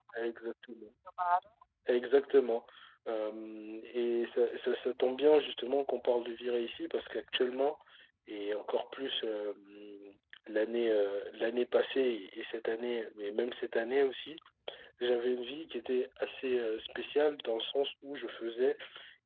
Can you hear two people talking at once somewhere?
No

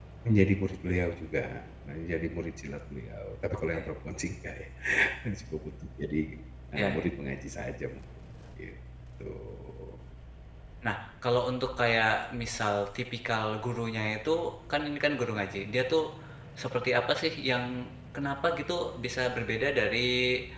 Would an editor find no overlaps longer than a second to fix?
Yes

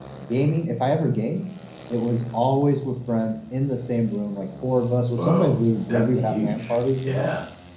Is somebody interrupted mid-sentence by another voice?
Yes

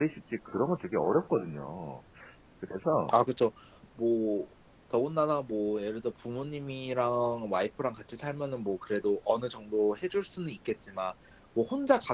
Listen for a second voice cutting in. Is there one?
No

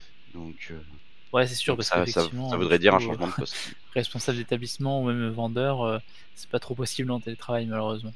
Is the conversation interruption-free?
No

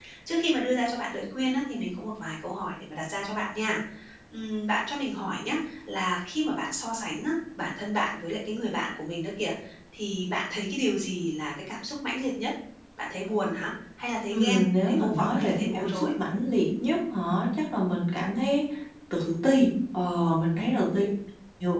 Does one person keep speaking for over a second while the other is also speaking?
Yes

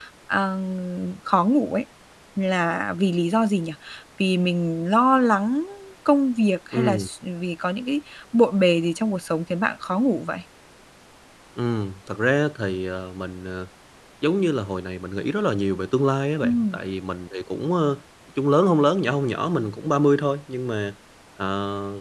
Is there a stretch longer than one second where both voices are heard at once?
No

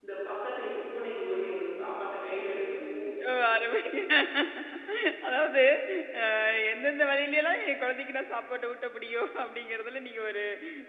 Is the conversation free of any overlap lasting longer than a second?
Yes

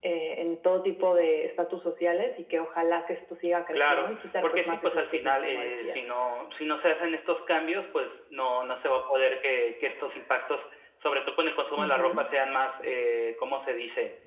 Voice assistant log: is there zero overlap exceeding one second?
No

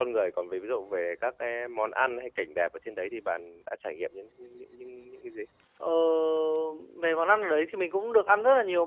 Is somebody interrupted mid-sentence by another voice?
No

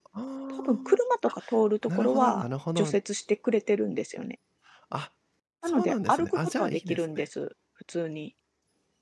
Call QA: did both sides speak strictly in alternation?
No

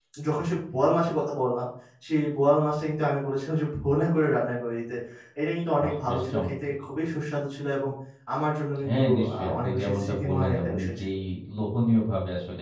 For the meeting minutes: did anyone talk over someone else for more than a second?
Yes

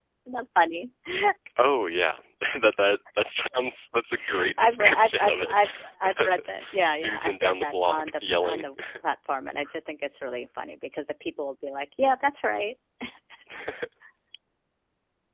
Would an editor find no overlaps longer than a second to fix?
No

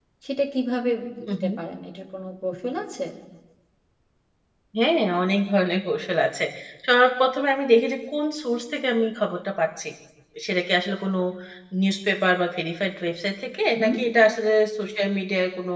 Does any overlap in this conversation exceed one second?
No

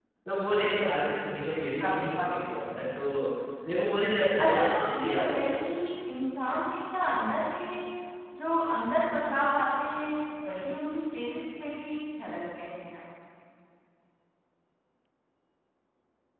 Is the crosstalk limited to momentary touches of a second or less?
No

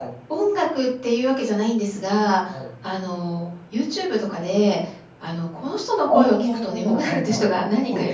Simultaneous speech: Yes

